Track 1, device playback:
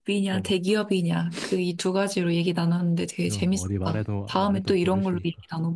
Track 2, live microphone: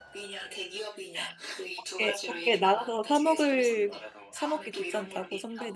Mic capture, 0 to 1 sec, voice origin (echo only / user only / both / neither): echo only